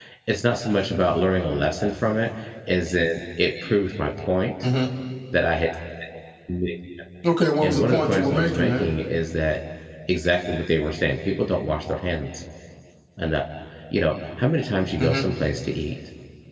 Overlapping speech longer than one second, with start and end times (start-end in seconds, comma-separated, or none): 7.6-8.9